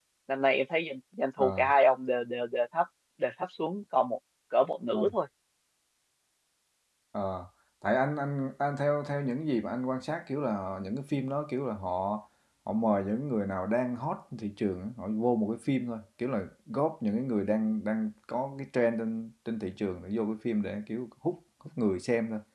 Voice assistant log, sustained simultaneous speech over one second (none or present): none